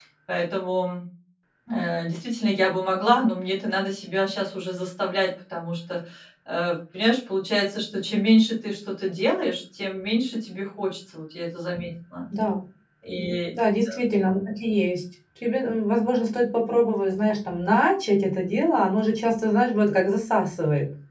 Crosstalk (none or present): none